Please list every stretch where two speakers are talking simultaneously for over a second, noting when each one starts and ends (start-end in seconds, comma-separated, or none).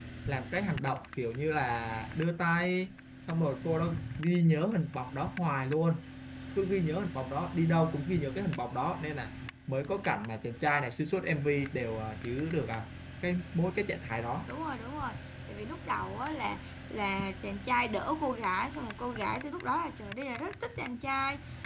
none